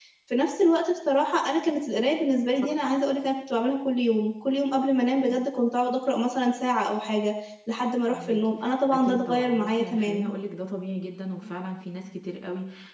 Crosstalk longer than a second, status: present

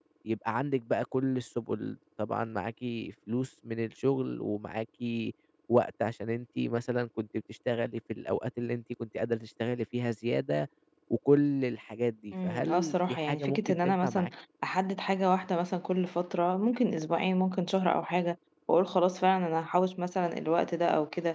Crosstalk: present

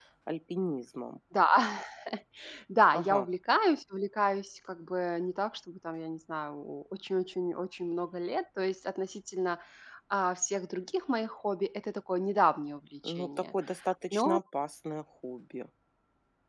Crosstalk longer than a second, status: none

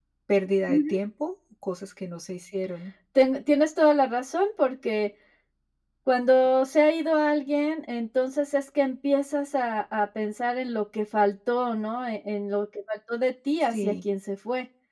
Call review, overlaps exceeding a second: none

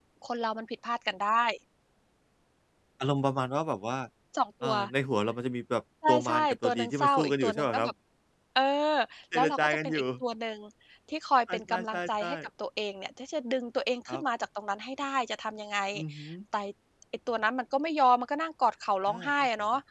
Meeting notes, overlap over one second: present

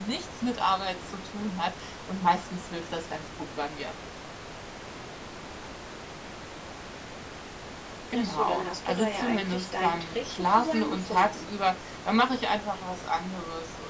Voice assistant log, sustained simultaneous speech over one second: present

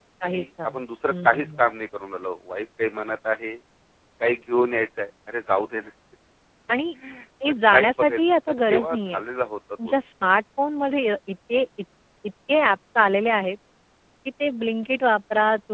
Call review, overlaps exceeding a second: present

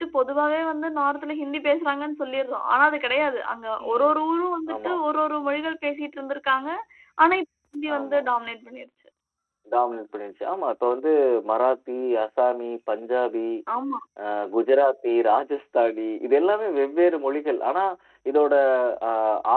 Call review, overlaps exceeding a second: none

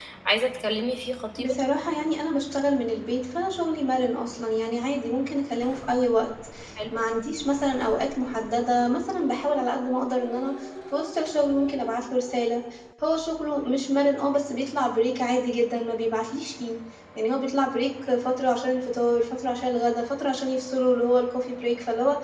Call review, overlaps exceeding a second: none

